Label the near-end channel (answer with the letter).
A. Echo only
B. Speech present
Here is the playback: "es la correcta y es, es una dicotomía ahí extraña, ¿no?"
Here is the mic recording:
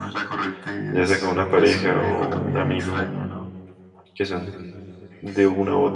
B